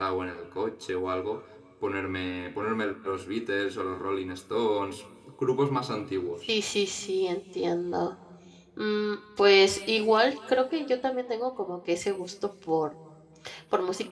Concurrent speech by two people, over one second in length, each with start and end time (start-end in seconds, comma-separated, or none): none